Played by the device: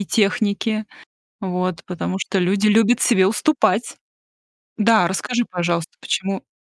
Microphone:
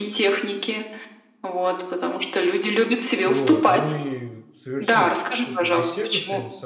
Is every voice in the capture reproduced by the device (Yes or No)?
No